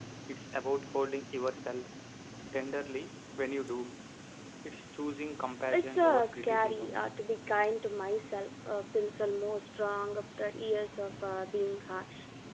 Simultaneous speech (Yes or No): Yes